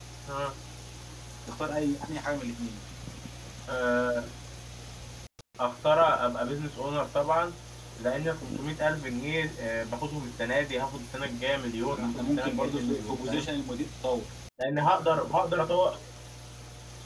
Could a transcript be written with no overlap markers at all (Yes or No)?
No